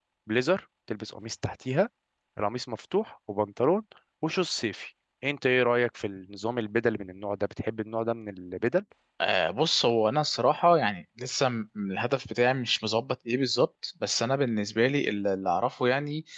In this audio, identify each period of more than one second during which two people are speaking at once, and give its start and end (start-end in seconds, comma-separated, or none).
none